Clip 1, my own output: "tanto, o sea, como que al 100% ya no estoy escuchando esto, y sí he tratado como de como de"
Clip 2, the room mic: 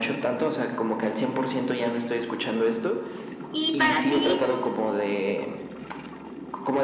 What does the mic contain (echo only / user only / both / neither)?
both